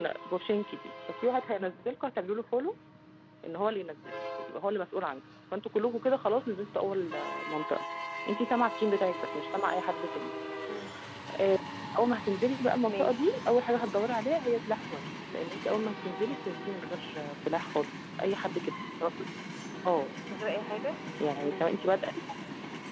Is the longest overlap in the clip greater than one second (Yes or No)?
No